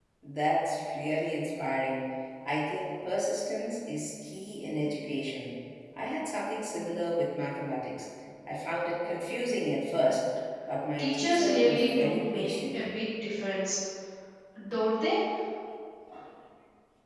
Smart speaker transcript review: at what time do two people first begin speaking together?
11 s

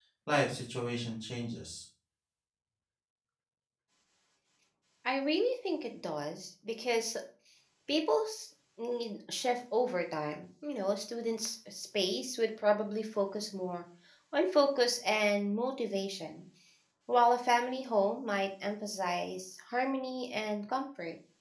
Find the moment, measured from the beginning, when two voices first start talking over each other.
none

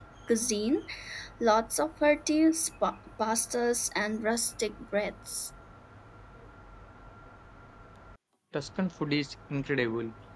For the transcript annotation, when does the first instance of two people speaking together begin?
none

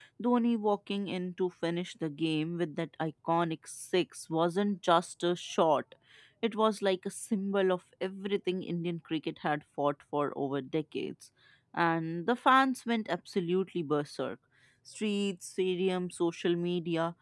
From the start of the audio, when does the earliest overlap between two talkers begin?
none

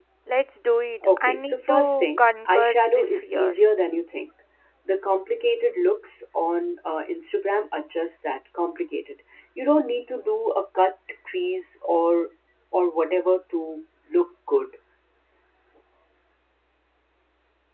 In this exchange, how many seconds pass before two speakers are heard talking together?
1 s

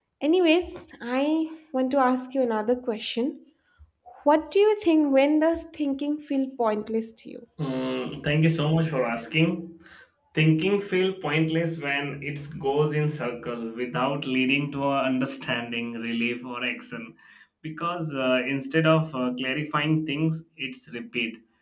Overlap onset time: none

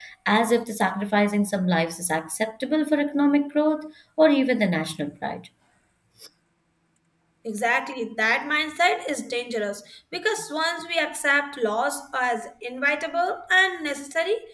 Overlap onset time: none

